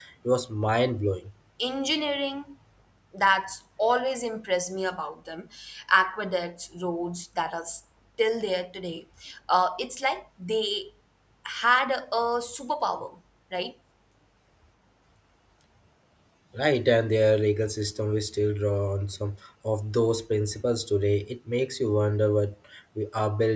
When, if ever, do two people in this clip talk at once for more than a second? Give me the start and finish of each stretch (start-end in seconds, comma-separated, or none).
none